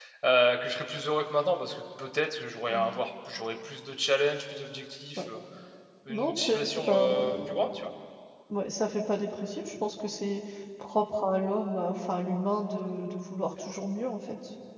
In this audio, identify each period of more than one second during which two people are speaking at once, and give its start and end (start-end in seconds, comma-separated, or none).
6.1-7.7